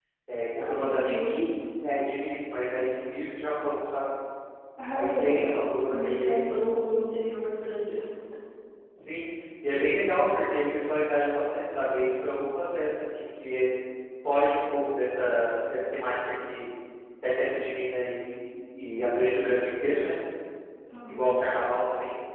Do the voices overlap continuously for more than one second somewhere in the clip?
Yes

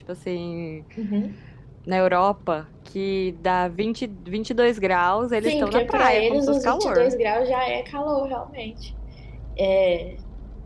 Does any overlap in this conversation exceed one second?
Yes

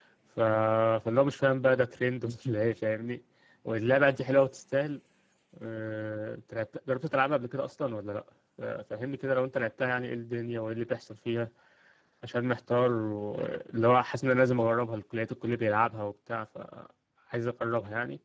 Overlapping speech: No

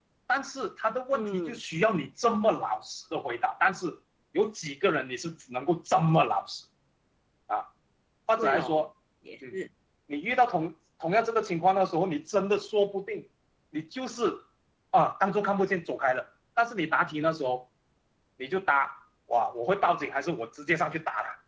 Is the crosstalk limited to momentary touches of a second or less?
Yes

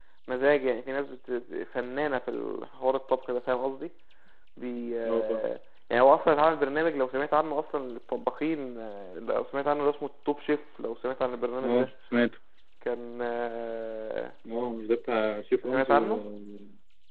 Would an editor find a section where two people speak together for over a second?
No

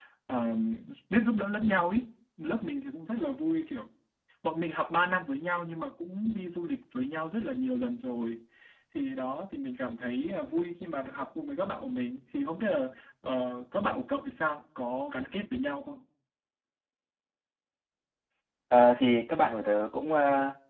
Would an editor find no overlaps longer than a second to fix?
Yes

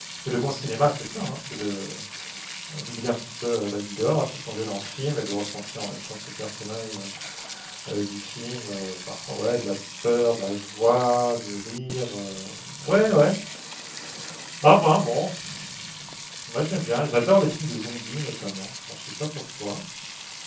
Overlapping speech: No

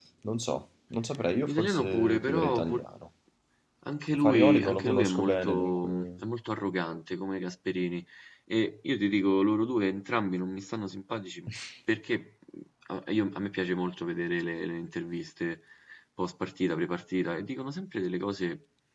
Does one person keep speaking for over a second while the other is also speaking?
Yes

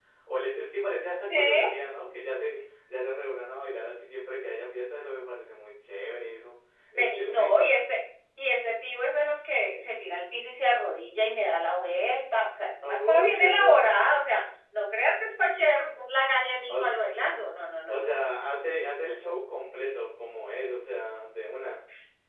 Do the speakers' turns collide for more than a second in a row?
Yes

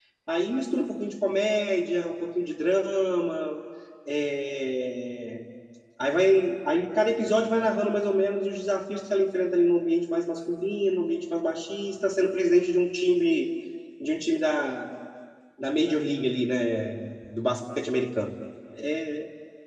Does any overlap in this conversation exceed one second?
No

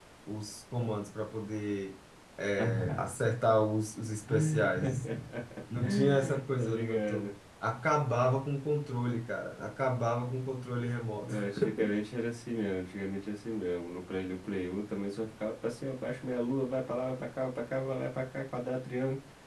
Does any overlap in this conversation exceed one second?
Yes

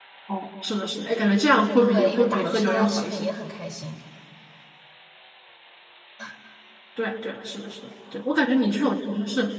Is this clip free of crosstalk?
No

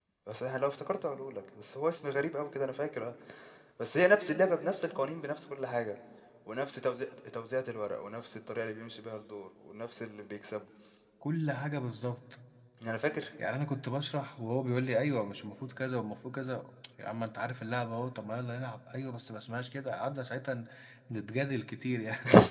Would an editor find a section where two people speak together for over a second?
No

